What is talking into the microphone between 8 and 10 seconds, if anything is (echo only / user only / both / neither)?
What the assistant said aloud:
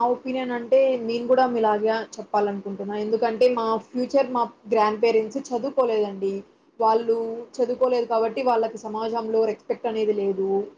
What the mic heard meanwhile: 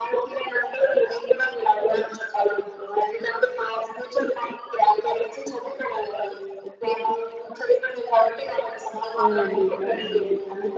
both